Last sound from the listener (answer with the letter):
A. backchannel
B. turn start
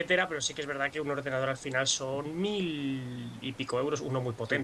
B